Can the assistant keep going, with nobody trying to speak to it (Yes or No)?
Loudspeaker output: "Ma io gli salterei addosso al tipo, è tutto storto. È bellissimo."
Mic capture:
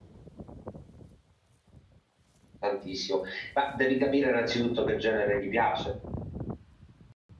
No